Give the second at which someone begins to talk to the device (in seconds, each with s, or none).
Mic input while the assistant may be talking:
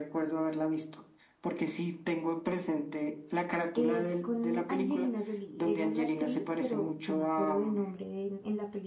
3.8 s